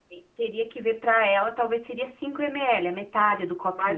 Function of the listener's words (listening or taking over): taking over